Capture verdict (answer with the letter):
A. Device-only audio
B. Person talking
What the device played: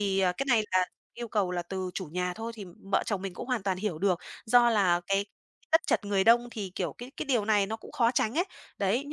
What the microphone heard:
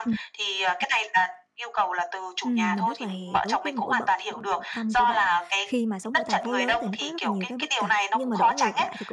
B